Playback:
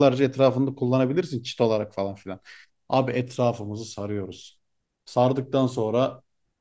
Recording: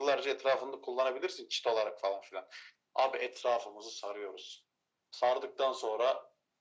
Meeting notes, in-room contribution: none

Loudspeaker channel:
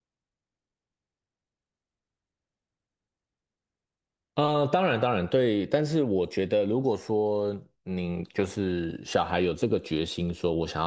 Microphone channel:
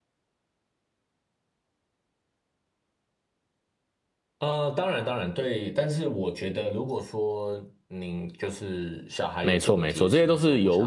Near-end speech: present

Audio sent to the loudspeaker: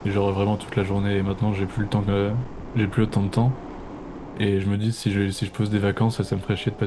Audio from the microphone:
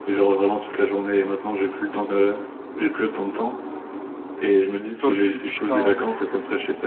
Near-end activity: present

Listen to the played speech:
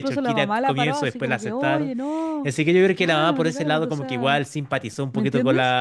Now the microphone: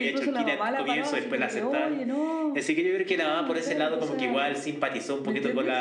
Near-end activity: none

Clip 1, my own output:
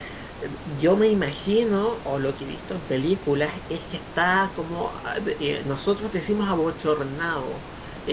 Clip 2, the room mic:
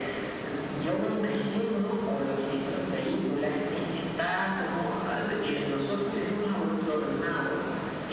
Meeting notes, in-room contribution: none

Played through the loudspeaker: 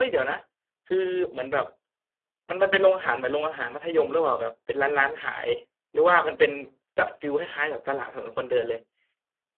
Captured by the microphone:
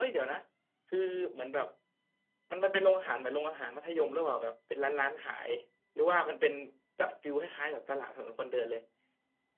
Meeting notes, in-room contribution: none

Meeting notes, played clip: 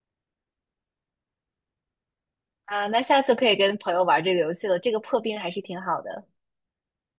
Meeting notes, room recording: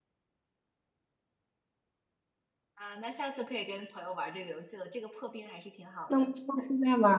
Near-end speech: present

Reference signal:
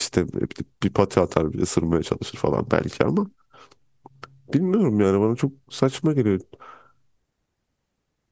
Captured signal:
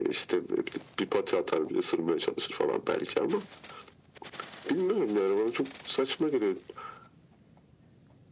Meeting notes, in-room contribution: none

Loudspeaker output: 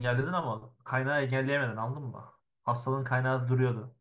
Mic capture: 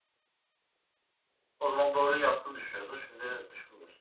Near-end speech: present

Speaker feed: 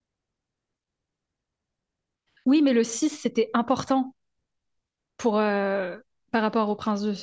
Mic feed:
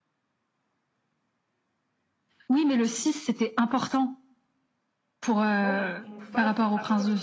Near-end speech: present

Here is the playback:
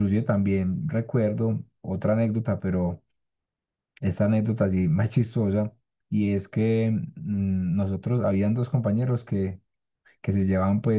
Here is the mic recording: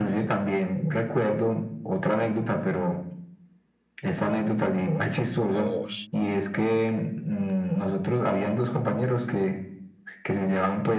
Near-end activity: present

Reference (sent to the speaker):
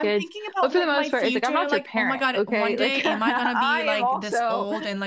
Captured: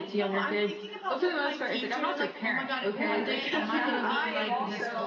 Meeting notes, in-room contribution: present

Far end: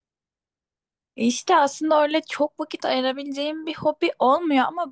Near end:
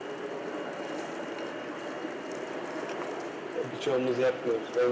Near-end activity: present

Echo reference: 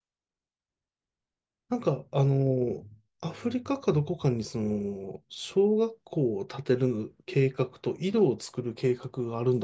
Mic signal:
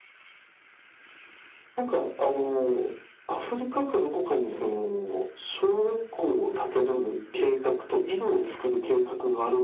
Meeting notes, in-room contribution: none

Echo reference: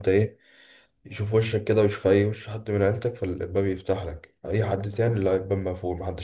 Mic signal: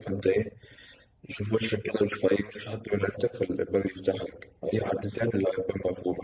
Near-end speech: none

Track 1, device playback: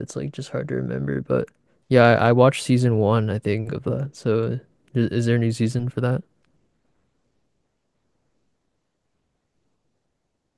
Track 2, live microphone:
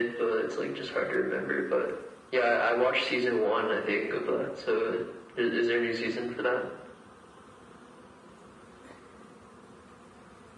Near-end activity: none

